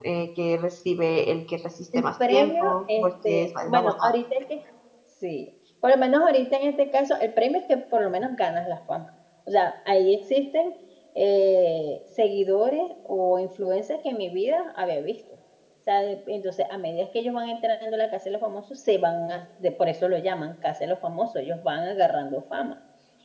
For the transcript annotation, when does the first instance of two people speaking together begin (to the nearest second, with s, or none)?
2 s